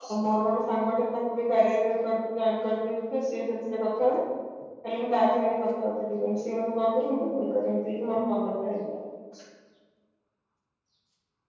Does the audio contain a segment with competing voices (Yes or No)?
No